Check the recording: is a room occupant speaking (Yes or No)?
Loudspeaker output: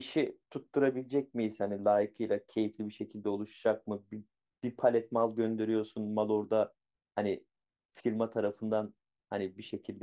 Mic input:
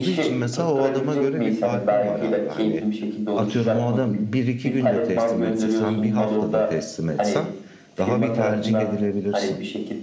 Yes